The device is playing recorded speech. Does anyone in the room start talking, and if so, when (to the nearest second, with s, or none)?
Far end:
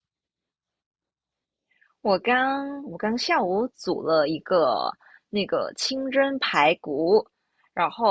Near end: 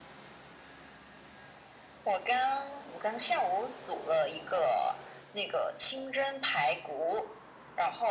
none